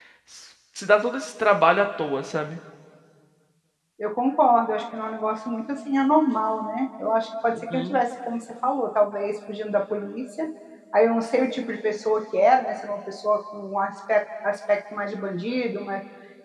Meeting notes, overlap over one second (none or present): none